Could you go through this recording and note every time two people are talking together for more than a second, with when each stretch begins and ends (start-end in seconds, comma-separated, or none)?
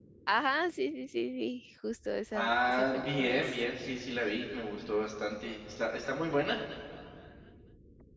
2.3-3.5